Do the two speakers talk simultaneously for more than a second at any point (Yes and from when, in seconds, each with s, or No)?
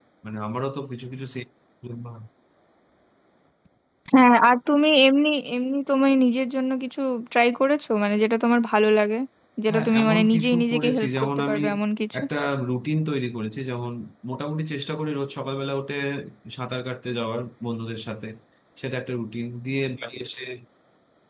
Yes, from 9.7 s